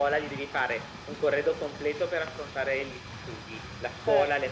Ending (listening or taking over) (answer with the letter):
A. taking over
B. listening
B